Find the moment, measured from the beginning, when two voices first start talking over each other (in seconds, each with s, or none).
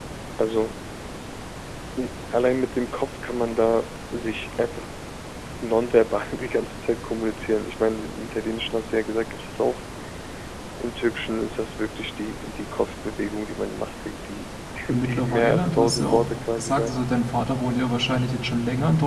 14.9 s